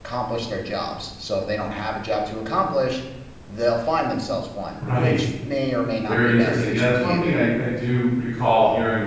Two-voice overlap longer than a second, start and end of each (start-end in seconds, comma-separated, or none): 6.1-7.3